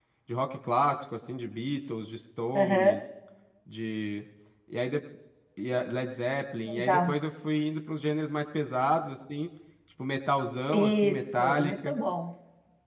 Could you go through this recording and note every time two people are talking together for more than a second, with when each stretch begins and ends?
10.7-11.9

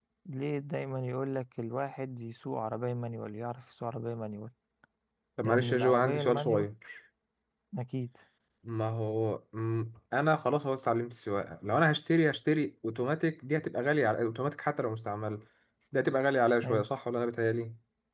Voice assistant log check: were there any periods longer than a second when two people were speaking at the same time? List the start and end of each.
5.4-6.7

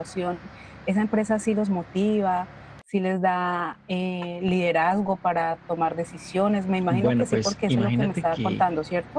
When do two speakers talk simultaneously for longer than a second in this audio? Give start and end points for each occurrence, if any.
6.9-8.6

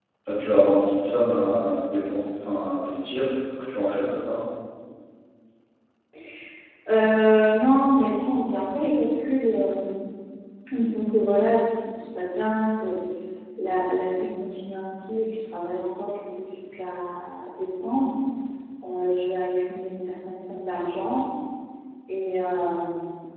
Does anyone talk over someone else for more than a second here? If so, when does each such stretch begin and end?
none

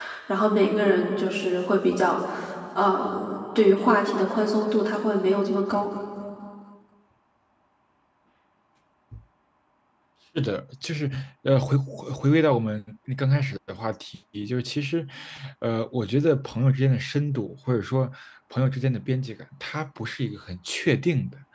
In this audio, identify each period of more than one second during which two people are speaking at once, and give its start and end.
none

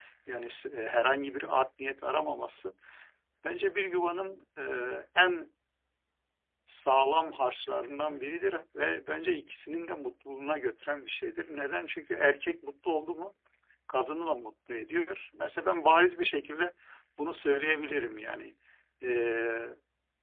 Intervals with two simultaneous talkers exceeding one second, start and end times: none

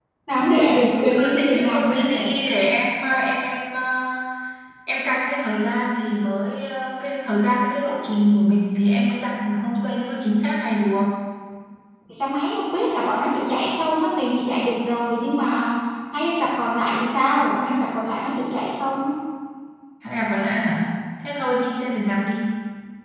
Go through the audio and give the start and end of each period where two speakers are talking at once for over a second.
0.8-2.3

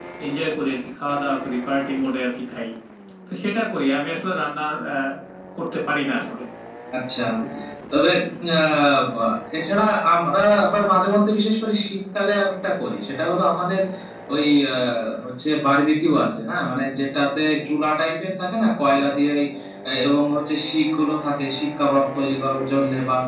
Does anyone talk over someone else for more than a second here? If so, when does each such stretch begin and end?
none

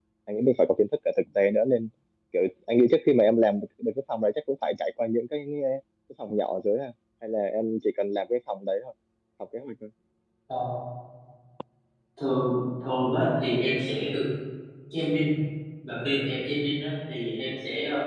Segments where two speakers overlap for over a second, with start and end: none

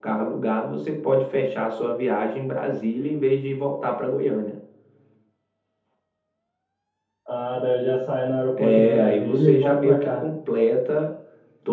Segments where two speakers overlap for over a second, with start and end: 8.6-10.2

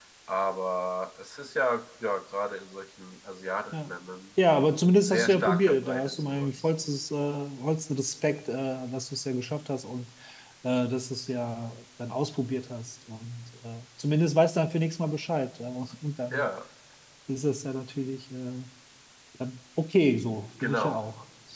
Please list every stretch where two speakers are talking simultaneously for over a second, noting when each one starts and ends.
5.0-6.5

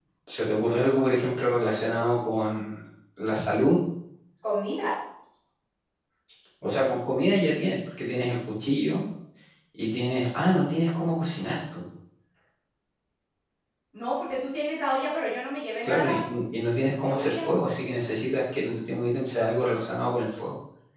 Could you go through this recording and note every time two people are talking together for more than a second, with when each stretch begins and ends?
none

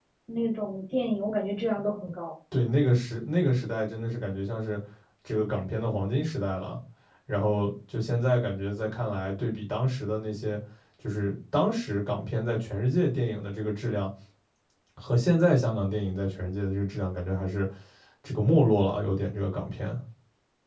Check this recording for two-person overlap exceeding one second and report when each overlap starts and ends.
none

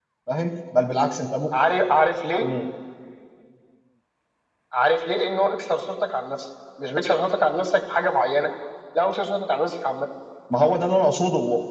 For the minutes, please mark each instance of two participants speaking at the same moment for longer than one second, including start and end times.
none

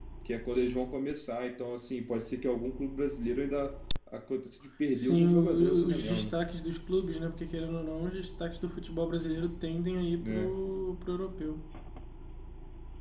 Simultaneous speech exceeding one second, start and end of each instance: 5.0-6.3

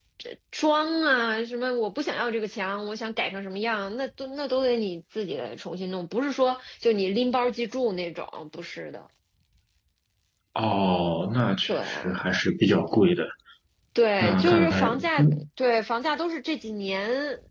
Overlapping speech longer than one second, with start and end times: 14.2-15.4

